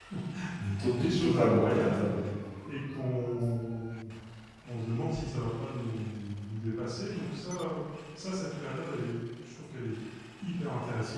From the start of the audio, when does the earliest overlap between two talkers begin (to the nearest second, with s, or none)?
1 s